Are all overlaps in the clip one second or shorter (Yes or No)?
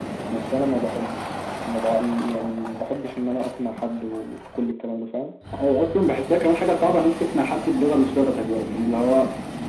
Yes